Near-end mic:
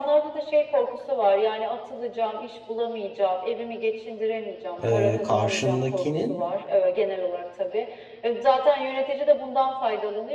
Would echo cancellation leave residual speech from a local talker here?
Yes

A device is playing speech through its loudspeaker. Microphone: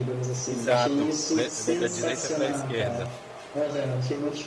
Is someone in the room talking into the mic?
Yes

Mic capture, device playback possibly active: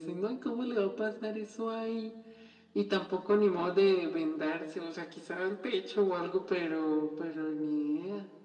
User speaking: No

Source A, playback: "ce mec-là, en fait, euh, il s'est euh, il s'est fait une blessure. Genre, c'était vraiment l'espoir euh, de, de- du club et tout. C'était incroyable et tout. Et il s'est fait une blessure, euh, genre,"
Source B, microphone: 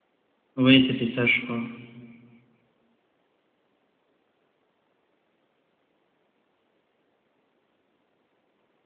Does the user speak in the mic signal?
Yes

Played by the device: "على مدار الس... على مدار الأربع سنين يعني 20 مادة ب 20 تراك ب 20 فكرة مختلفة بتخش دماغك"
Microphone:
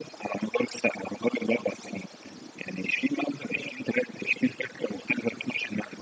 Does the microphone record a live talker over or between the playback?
No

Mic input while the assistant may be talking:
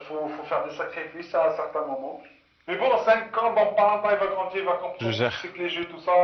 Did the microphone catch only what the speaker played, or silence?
No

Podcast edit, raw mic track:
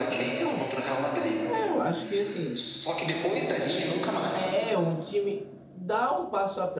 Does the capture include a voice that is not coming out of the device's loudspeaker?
Yes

